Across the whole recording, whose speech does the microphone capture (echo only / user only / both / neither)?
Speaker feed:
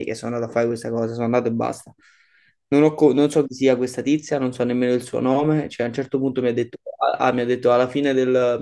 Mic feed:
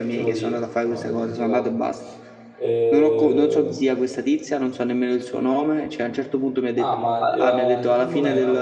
both